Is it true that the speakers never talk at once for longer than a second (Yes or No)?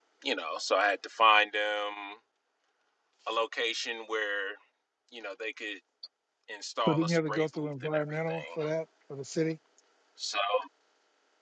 No